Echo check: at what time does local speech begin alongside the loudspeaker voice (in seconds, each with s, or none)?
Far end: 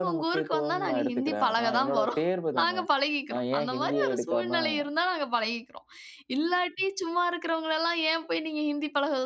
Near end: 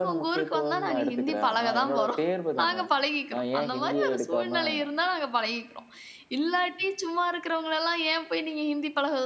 none